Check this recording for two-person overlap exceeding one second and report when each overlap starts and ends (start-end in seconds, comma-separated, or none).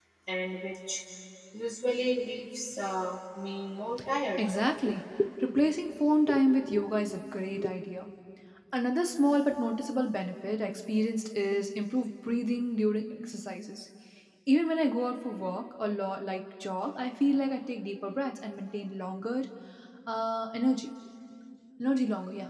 none